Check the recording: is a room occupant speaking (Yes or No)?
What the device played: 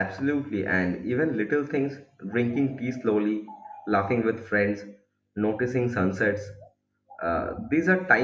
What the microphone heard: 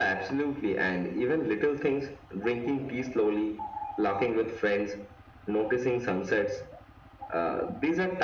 No